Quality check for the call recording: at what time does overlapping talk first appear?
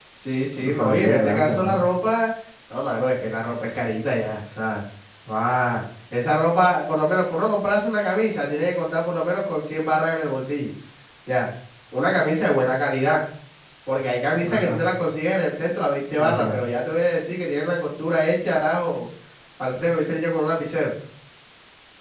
0.5 s

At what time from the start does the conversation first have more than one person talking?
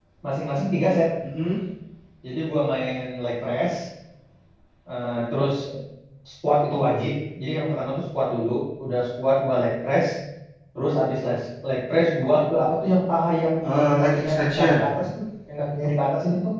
13.6 s

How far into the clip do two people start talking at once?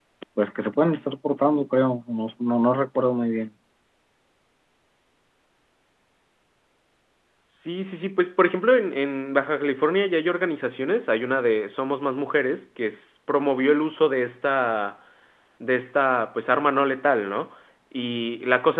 none

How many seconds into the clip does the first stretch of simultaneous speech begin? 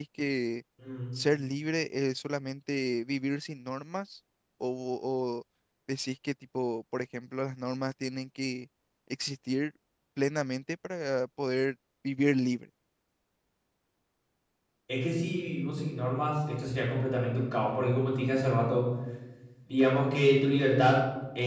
none

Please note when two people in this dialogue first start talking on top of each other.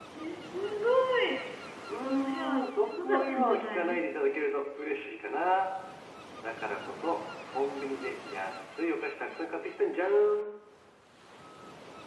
2.0 s

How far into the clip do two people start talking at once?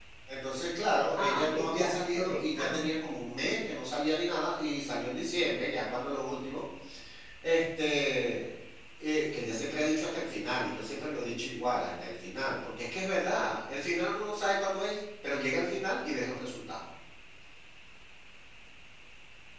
1.2 s

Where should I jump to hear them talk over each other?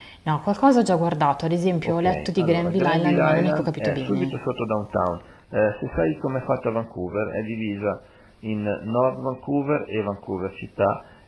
1.8 s

